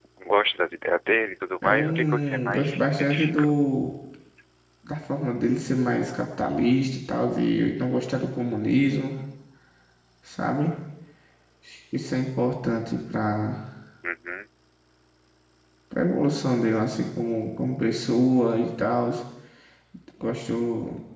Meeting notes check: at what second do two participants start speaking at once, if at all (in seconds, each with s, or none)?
1.6 s